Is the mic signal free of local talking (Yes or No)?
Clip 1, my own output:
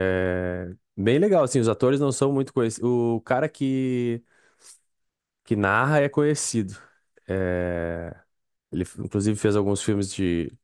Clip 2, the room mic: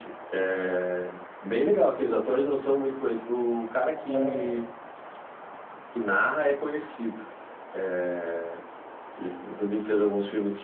No